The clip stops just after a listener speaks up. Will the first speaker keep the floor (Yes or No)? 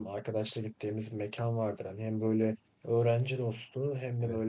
Yes